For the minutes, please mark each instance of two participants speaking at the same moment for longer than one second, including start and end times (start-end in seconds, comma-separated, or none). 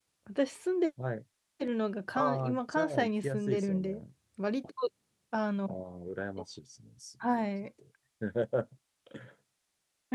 2.2-4.0